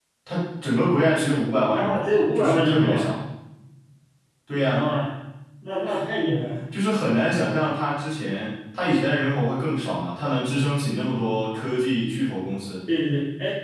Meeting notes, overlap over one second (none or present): present